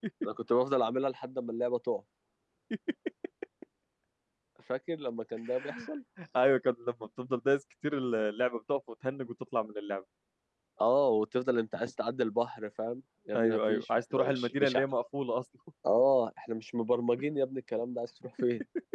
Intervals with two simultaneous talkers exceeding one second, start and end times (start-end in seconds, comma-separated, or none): 13.3-14.8